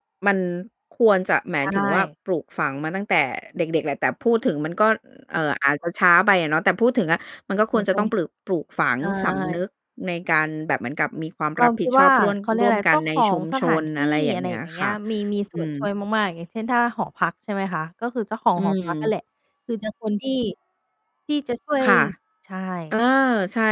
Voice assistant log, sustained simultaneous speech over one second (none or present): present